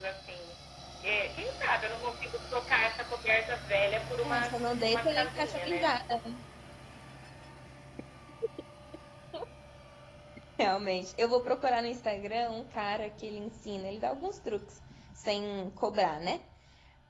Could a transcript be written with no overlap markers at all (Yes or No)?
No